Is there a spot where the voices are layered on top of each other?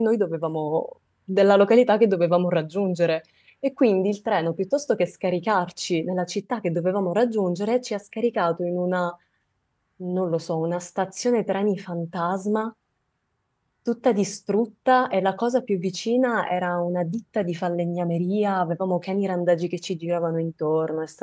No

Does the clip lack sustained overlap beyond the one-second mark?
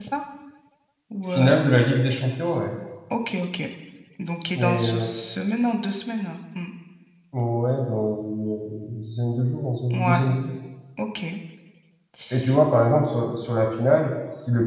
Yes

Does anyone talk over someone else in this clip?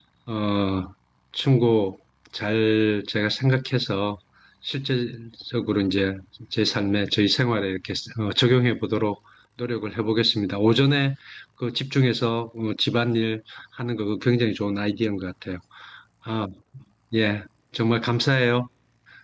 No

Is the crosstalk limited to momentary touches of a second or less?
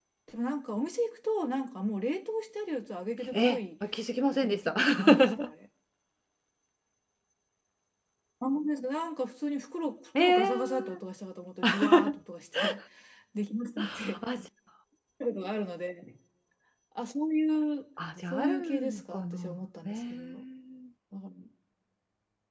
No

